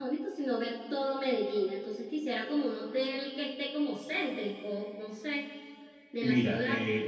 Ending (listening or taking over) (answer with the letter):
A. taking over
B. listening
A